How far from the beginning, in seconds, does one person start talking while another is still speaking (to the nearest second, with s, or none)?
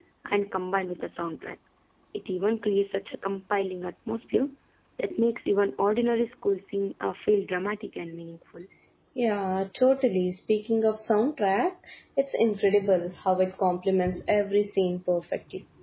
none